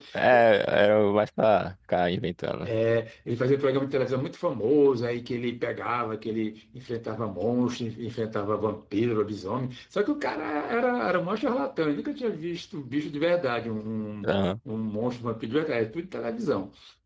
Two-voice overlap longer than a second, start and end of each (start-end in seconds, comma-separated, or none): none